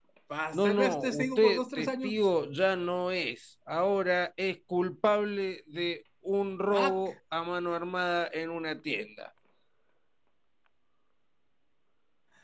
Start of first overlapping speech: 0.6 s

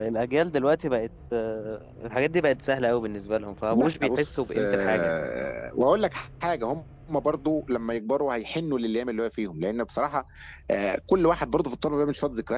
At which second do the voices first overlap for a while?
3.7 s

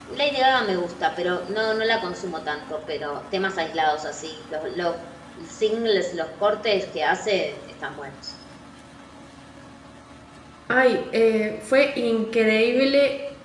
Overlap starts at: none

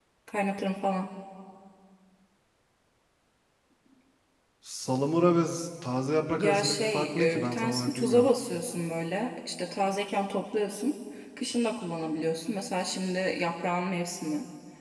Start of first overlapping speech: 6.4 s

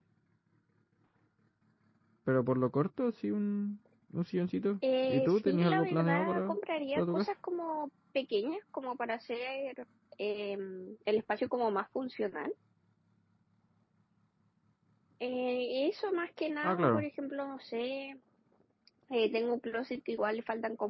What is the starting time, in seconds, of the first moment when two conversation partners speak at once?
5.0 s

